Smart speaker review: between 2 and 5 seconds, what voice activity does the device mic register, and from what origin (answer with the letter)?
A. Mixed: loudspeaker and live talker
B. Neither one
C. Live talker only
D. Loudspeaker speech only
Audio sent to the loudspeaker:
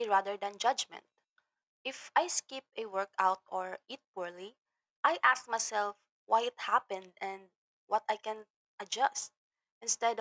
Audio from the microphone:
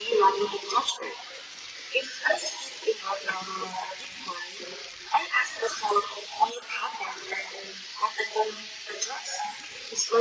D